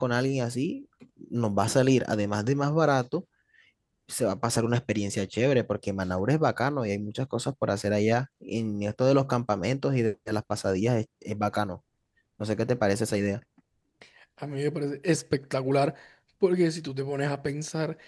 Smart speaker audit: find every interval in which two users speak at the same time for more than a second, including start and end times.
none

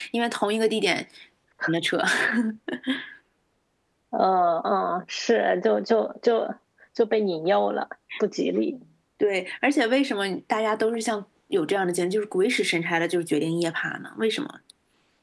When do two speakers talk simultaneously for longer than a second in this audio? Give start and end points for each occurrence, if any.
none

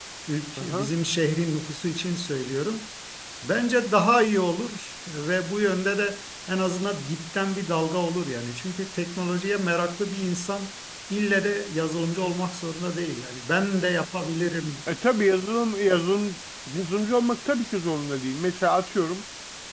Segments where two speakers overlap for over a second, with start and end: none

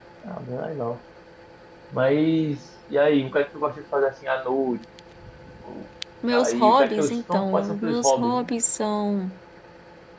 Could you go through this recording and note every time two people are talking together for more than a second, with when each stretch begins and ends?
6.3-8.5

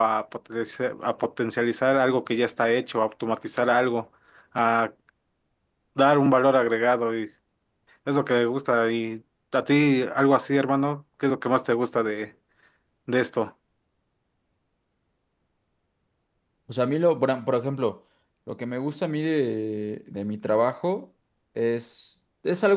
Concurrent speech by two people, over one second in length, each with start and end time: none

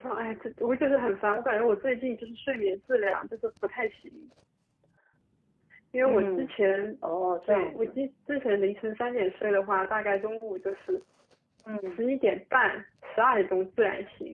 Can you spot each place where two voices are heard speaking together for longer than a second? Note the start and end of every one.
none

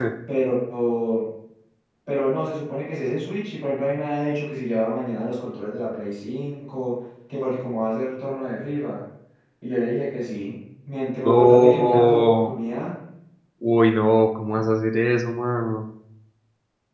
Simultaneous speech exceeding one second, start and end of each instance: 11.2-12.6

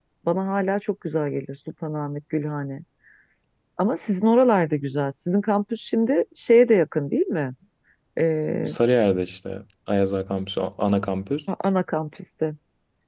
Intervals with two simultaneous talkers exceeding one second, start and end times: none

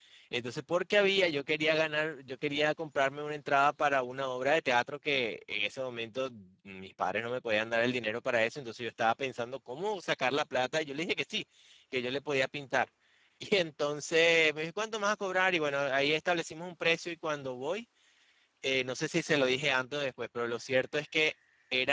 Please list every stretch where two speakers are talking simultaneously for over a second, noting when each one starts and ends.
none

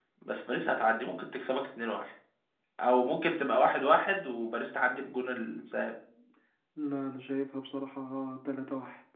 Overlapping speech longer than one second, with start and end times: none

